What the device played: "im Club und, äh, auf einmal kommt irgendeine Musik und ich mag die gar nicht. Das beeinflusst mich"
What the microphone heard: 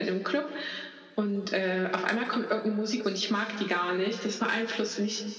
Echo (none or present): present